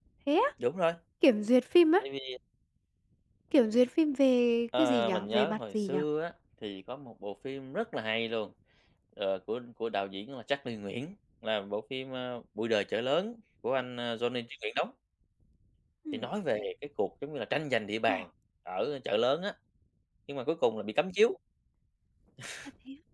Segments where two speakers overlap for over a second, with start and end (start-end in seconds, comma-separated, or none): 4.8-6.0